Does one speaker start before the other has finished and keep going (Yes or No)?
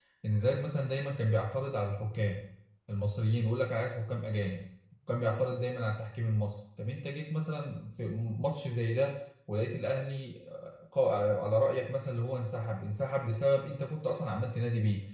No